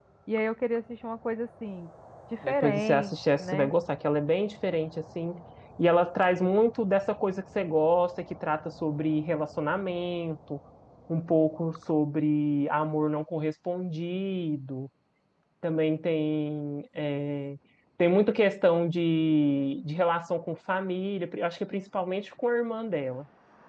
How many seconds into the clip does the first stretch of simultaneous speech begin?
2.4 s

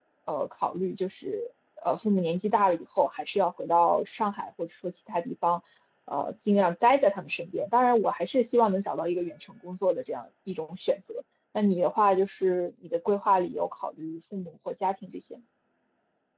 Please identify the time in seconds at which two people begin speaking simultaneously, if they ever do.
none

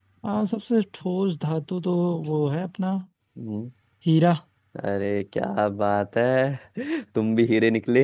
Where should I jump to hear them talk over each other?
none

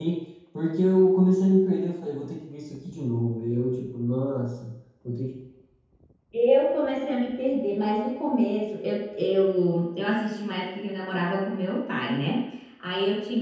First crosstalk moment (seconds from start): none

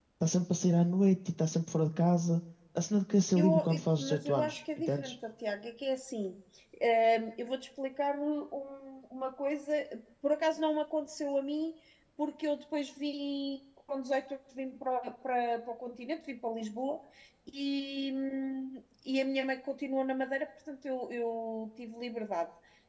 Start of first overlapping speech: 3.4 s

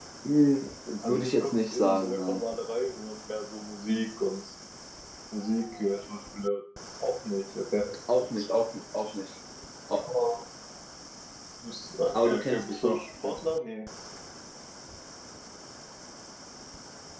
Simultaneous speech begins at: 1.0 s

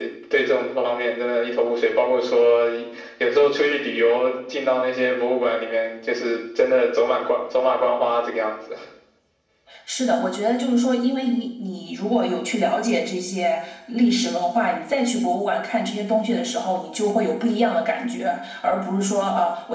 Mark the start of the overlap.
none

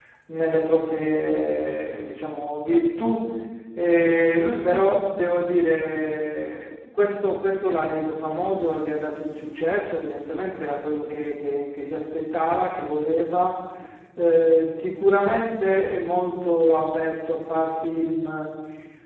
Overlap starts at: none

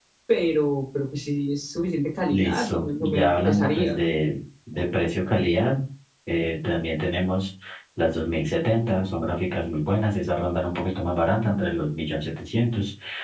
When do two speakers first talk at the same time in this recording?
2.3 s

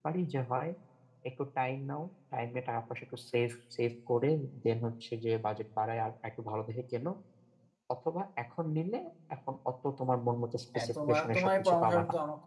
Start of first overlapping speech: 10.7 s

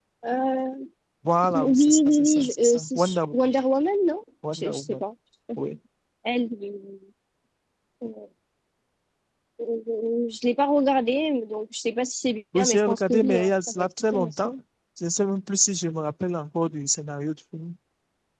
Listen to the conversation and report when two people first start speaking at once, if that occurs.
1.5 s

